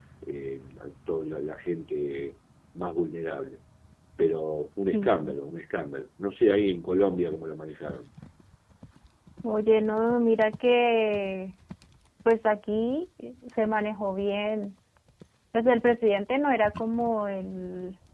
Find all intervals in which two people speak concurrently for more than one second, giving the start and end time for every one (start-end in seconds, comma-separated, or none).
none